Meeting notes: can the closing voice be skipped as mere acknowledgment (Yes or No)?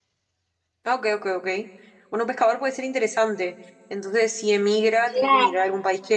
Yes